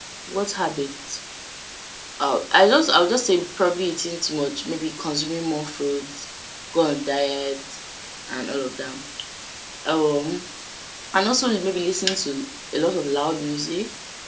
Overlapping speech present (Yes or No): No